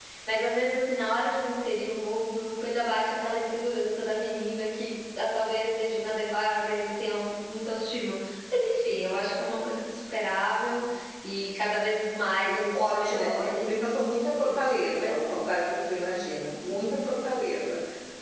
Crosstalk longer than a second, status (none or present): present